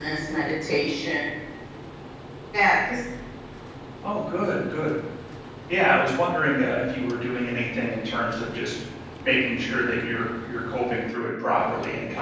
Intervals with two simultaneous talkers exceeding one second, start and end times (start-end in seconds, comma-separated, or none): none